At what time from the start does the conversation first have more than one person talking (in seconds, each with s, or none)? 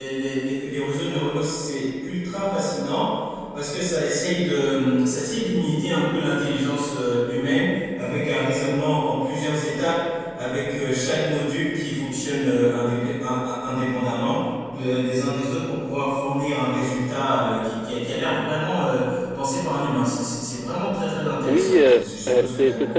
21.5 s